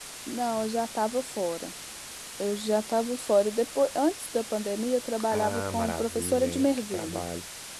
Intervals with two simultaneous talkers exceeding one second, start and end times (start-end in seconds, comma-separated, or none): 5.3-7.2